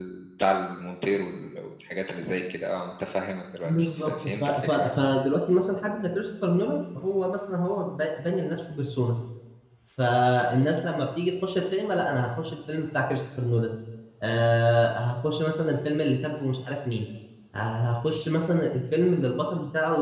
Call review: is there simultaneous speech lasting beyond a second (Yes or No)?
Yes